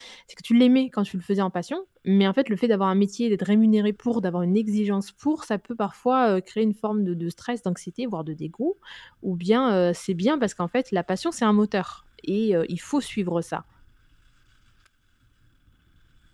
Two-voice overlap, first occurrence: none

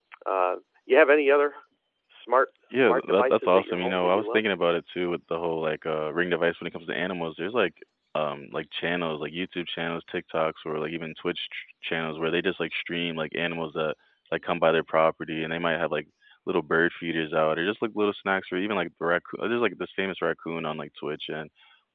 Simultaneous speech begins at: 2.7 s

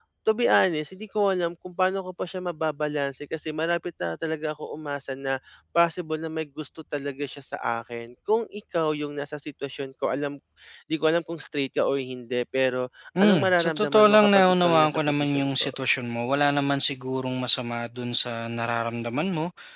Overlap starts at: 13.2 s

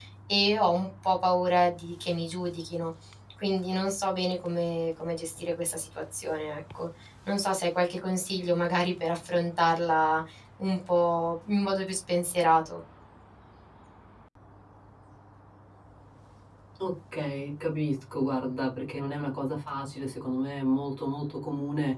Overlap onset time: none

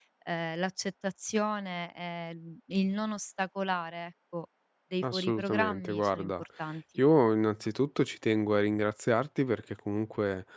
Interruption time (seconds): 5.0 s

